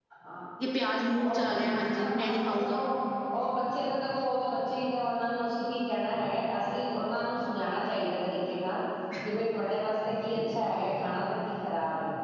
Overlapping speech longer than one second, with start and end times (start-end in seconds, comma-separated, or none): 1.2-2.8